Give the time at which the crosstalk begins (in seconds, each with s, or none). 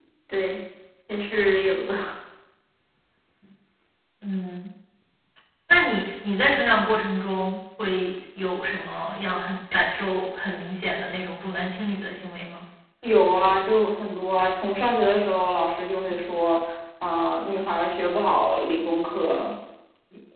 none